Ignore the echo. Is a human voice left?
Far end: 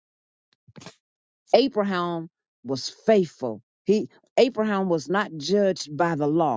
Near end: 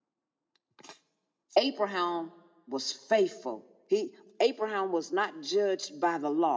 No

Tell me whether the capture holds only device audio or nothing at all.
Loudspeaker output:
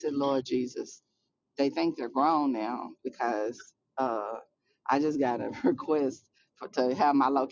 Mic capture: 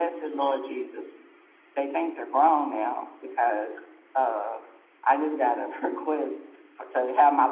Yes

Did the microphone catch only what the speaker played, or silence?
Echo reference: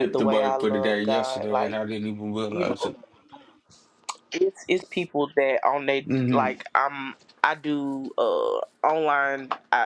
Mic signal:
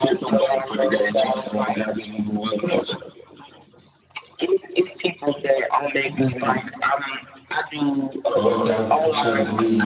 No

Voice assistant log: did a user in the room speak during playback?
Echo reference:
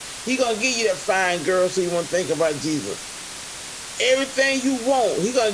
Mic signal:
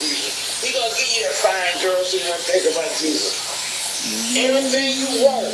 Yes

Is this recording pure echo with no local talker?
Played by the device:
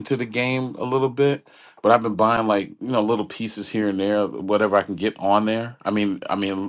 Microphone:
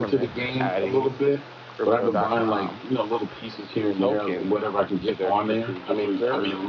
No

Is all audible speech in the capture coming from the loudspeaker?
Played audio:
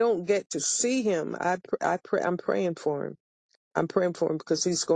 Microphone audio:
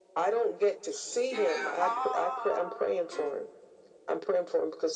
No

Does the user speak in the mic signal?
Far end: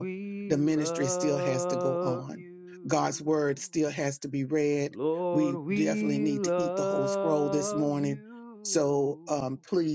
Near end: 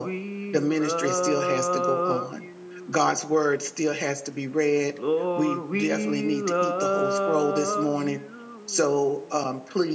No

